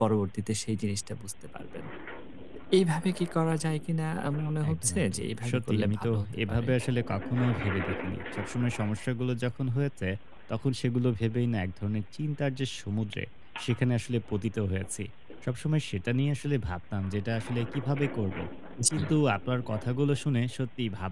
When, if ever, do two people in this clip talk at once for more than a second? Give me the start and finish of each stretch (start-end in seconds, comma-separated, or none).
4.7-6.7